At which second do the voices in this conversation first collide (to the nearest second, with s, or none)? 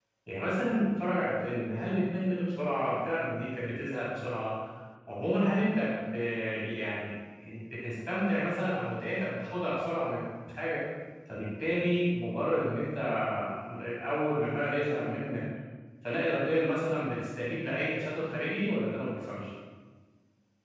none